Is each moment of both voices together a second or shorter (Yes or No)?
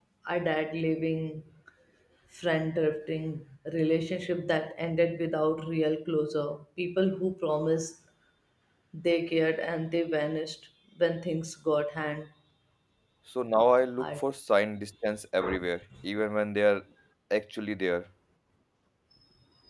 Yes